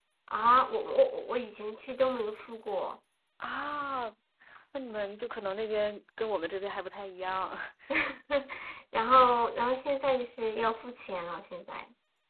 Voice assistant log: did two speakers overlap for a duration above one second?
No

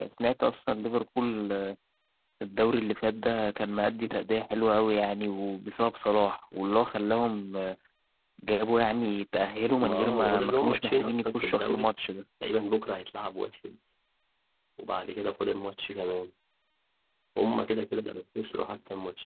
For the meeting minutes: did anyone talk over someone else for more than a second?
Yes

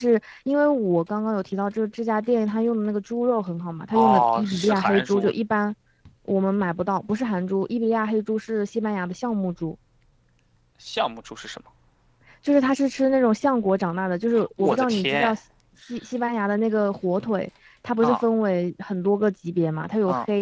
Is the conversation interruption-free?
No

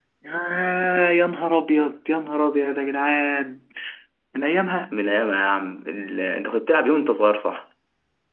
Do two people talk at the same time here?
No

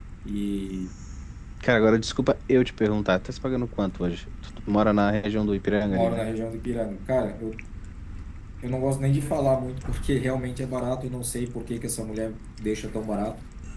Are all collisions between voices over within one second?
Yes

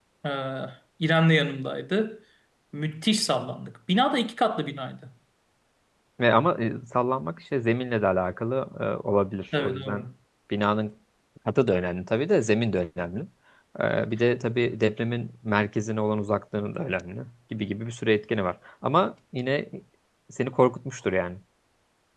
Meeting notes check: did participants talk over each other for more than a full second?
No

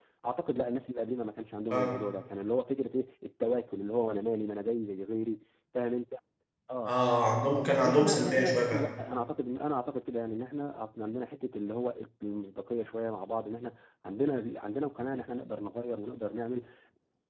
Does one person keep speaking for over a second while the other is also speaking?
Yes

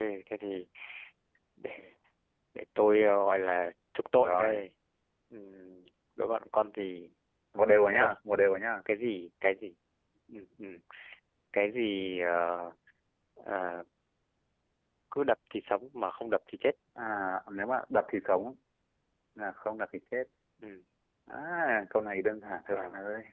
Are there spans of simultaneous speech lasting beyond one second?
No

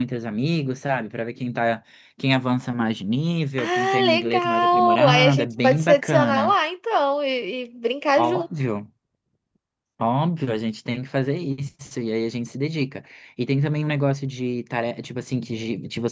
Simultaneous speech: Yes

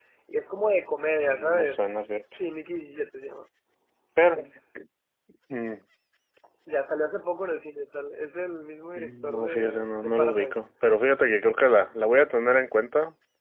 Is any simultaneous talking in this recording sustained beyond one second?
Yes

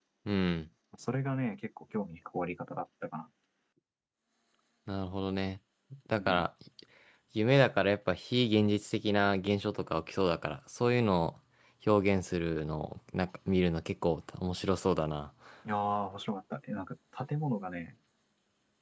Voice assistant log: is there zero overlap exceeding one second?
Yes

